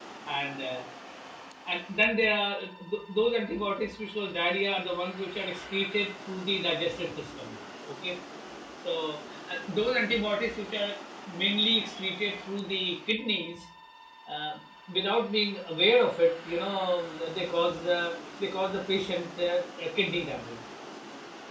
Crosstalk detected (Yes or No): No